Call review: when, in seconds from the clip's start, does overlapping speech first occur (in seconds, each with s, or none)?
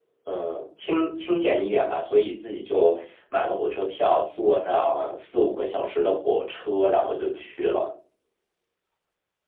none